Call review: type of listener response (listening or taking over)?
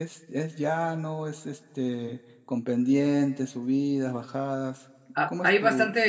taking over